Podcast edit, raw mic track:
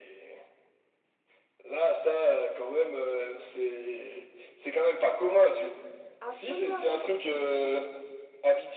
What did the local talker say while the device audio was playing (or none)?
Absolument rien d'exceptionnel.